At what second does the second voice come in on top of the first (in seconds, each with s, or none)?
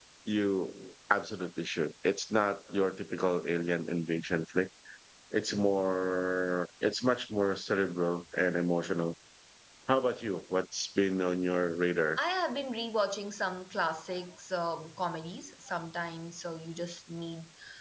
none